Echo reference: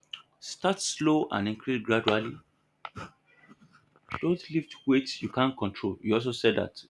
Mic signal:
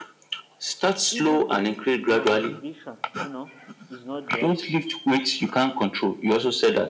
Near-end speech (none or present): present